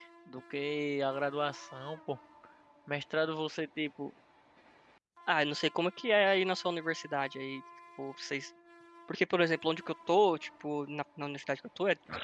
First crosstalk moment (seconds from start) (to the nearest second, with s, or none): none